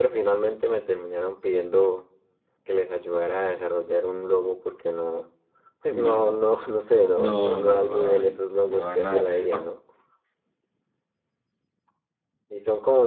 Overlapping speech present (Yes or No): Yes